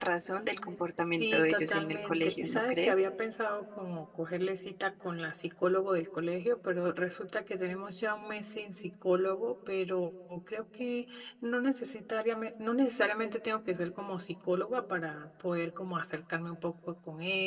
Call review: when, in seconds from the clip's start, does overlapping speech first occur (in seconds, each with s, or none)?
1.2 s